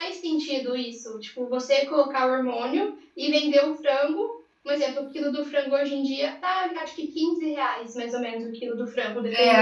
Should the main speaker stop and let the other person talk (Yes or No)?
Yes